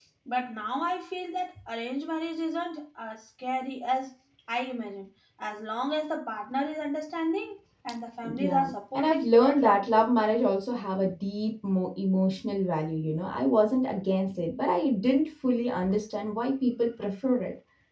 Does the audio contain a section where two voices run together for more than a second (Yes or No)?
Yes